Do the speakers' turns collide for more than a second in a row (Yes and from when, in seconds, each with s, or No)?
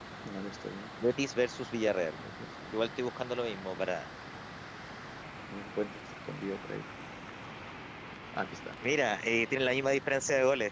No